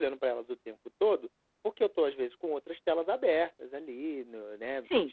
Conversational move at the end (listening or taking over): taking over